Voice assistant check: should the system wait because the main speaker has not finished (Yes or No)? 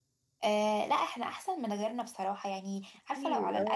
Yes